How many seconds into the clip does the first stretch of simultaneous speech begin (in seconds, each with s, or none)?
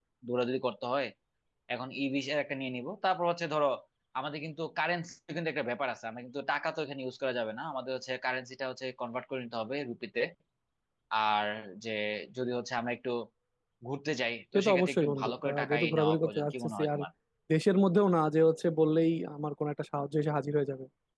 14.6 s